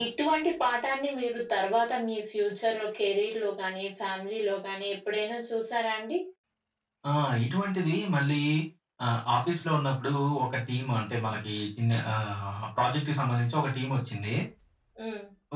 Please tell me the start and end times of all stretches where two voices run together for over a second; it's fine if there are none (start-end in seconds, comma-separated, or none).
none